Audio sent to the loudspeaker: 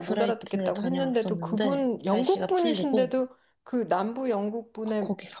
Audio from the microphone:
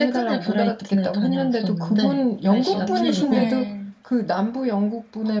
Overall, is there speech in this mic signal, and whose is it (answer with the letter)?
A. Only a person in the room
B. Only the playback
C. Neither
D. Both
D